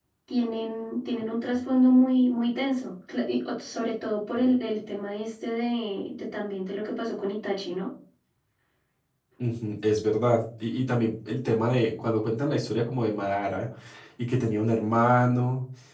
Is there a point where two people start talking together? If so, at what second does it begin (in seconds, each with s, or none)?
none